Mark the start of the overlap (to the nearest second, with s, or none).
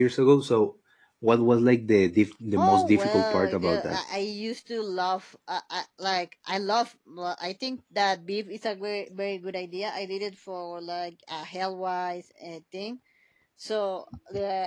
3 s